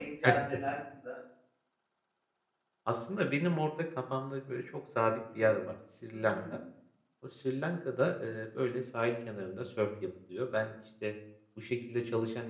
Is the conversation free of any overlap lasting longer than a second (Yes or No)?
Yes